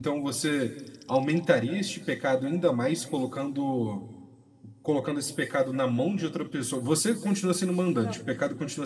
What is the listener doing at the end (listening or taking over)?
listening